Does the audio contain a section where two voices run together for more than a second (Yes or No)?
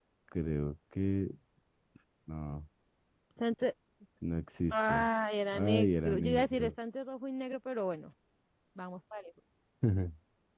Yes